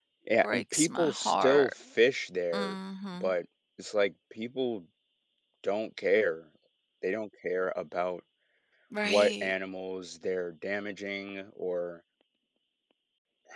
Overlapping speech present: Yes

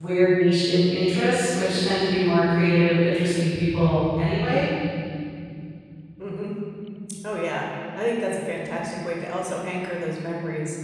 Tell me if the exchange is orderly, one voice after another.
Yes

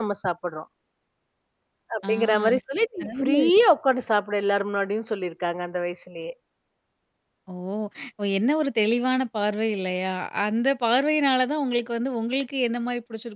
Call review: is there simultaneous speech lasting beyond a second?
No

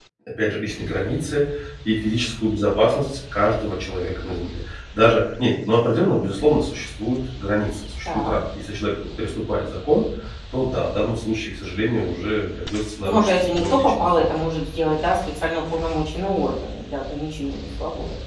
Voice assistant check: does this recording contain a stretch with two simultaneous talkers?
Yes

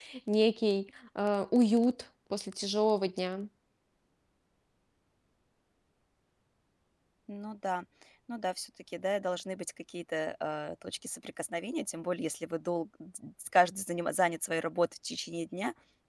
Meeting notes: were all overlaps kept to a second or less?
Yes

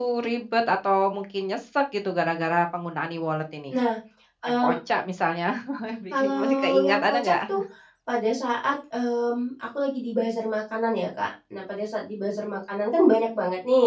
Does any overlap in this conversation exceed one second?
Yes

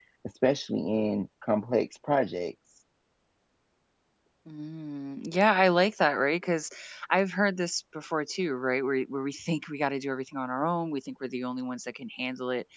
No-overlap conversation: Yes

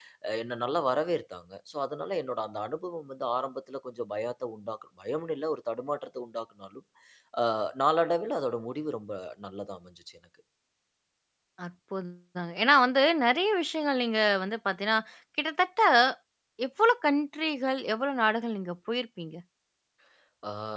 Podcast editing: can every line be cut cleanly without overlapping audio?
Yes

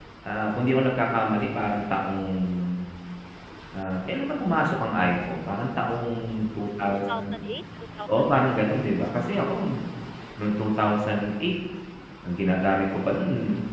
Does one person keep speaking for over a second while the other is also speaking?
No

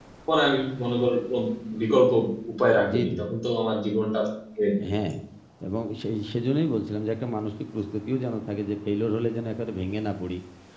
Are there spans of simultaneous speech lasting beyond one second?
No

